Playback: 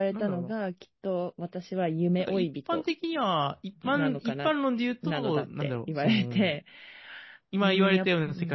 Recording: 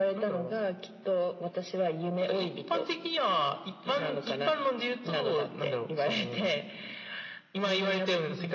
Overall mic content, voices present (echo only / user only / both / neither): echo only